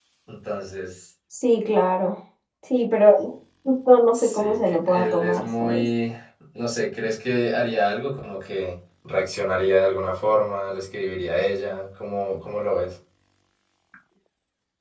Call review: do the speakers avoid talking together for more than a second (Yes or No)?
No